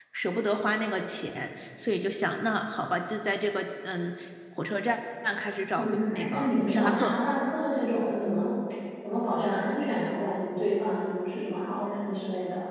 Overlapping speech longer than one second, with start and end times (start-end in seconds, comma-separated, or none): 5.7-7.2